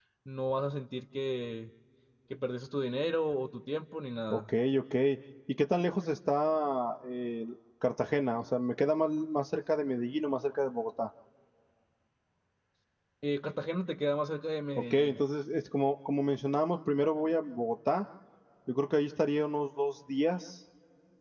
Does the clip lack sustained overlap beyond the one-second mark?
Yes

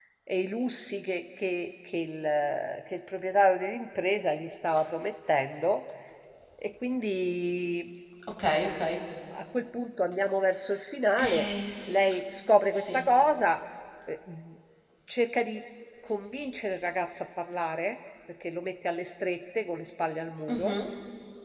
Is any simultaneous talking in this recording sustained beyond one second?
No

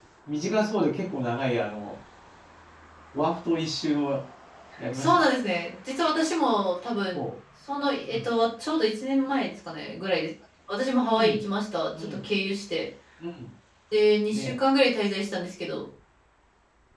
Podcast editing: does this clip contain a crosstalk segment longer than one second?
No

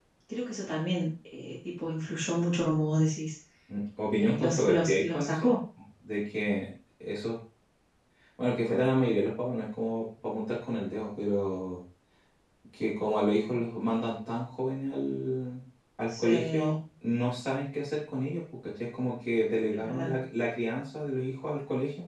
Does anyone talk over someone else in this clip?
Yes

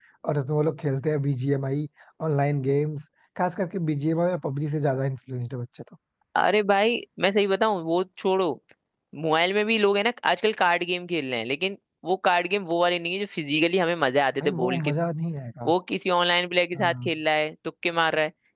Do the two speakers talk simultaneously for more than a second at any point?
No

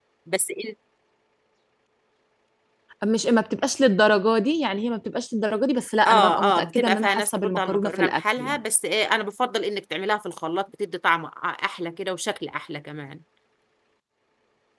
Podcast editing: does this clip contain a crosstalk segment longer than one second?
Yes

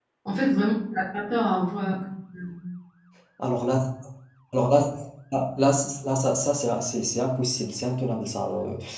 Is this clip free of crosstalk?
Yes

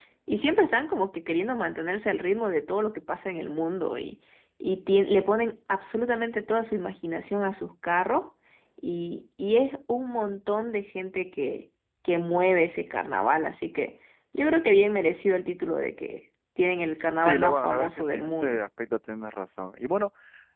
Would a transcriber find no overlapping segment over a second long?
No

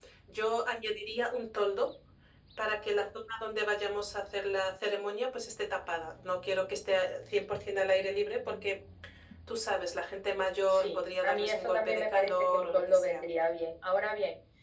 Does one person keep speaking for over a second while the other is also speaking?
Yes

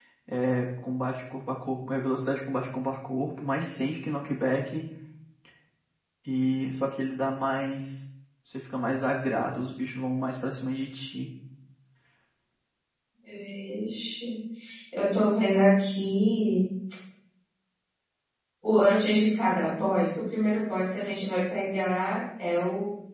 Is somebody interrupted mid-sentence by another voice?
No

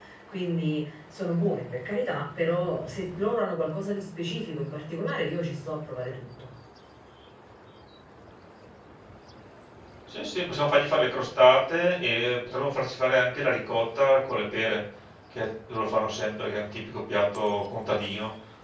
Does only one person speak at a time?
Yes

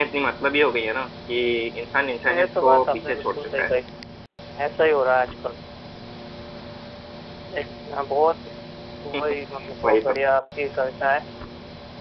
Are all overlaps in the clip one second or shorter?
No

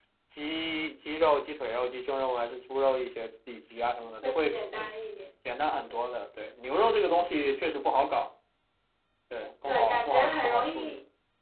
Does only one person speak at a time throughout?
No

